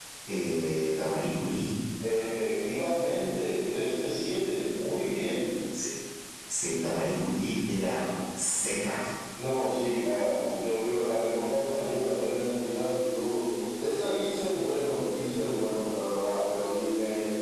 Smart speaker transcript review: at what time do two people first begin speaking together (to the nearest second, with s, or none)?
none